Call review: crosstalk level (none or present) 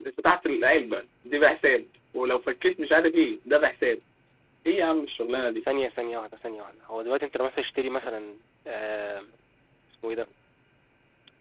none